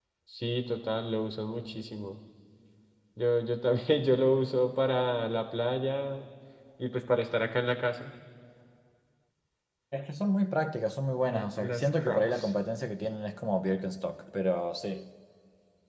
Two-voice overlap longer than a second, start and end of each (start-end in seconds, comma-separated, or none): 11.3-12.5